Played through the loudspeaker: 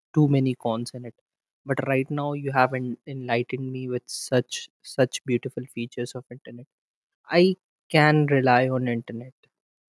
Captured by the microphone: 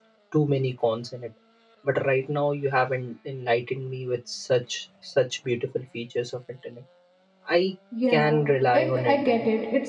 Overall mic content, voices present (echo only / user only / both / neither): both